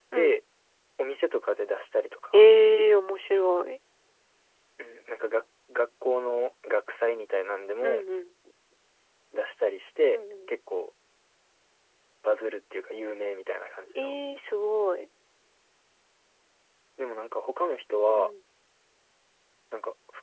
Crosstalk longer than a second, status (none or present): none